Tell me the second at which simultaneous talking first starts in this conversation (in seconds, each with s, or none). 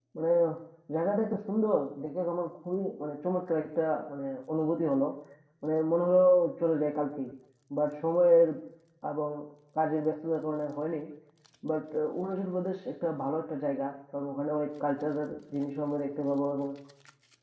none